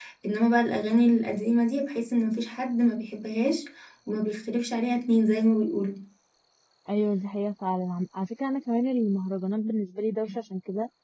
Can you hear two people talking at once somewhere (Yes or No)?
No